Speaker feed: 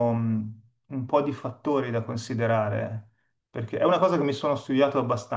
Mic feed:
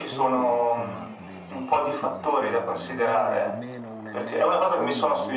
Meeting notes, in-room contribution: present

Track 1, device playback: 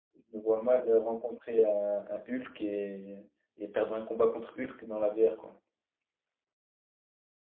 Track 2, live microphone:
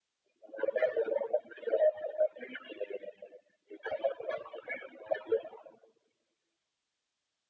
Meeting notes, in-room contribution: none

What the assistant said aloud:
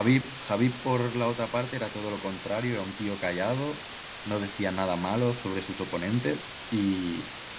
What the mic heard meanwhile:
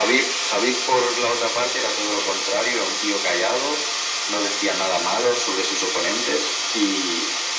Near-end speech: none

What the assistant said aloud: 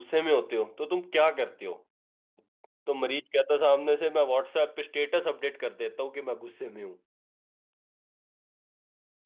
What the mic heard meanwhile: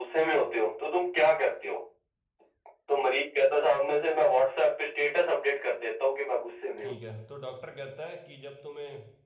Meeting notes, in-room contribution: present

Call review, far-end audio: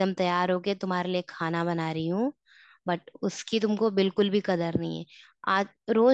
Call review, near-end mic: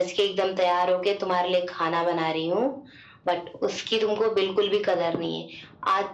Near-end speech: none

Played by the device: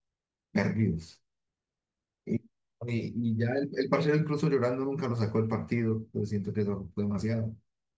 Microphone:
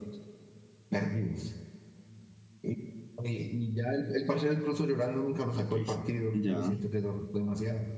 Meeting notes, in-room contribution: present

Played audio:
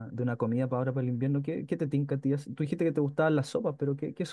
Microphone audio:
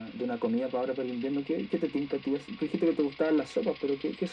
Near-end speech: none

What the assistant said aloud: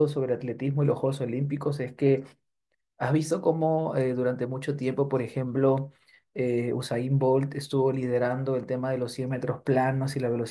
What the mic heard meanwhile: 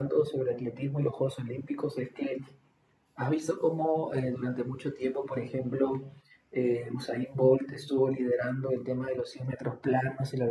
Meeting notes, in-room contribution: none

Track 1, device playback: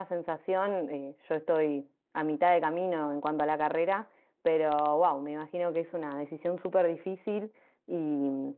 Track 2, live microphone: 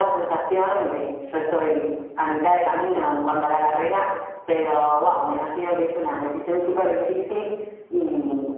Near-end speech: none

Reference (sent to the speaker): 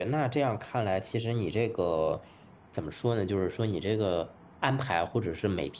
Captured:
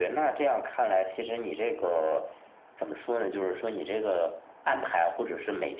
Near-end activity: none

